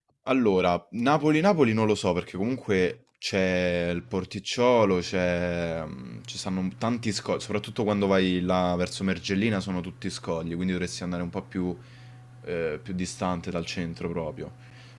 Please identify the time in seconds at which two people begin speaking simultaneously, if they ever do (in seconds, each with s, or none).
none